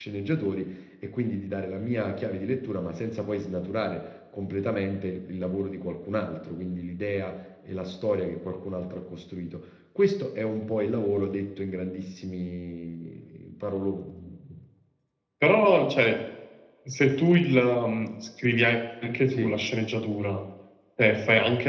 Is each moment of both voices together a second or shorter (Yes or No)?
Yes